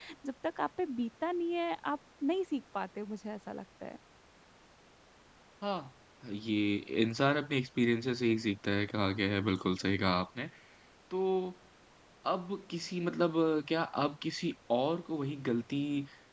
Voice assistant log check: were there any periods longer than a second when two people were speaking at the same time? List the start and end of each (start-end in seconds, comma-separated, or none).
none